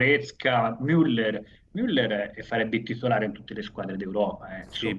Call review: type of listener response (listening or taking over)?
taking over